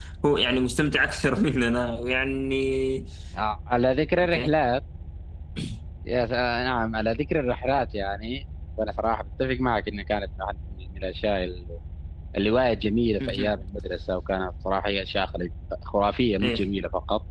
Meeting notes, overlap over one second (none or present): none